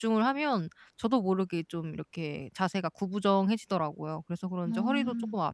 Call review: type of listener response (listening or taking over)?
listening